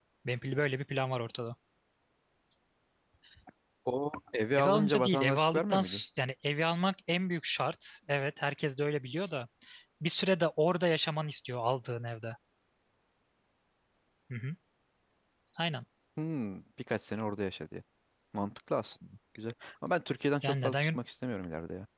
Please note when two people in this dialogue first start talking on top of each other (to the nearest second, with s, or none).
5 s